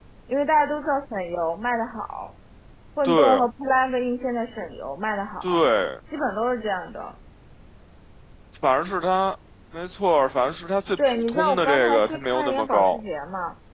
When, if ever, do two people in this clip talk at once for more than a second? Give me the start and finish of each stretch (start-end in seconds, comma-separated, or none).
11.1-13.0